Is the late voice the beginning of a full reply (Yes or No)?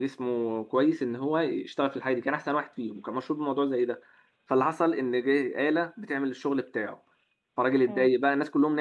No